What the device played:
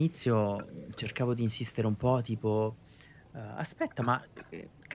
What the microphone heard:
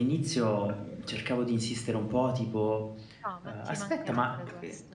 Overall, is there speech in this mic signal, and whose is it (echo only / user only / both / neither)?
both